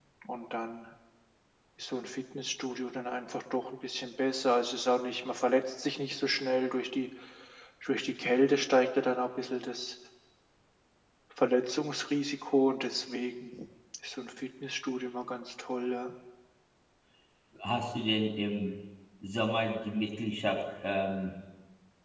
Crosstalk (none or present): none